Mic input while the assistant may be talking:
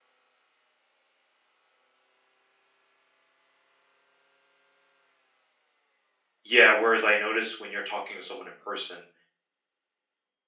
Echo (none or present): none